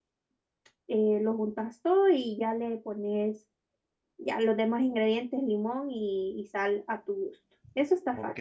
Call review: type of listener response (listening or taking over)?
taking over